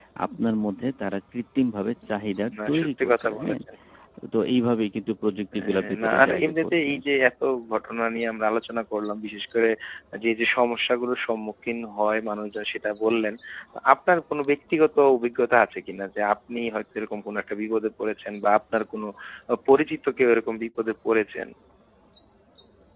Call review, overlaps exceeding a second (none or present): present